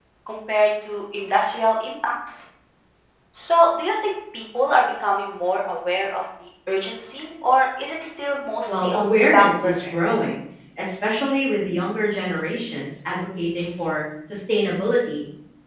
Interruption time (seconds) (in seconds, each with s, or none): 8.7 s